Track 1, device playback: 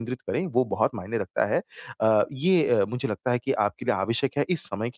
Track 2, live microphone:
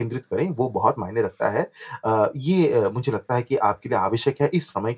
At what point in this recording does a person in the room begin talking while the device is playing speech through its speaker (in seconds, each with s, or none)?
none